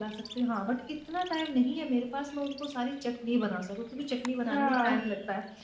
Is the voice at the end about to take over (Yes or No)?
No